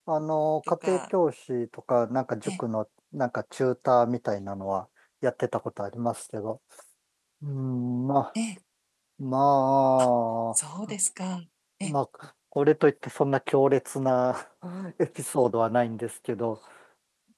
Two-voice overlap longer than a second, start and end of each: none

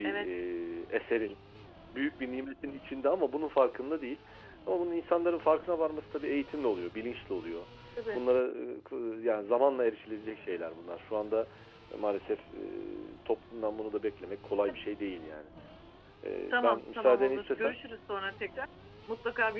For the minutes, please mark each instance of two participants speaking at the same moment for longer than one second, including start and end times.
16.5-17.8

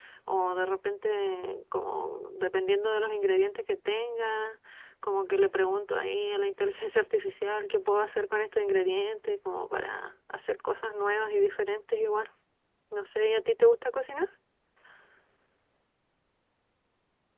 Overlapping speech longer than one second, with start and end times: none

